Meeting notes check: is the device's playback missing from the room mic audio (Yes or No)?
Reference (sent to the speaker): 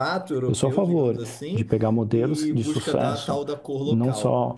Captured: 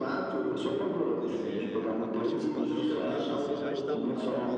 No